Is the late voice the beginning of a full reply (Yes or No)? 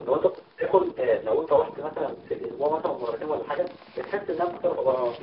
No